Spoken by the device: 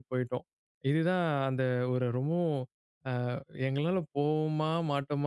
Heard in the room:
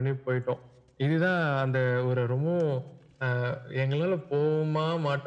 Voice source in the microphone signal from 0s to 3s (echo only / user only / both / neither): echo only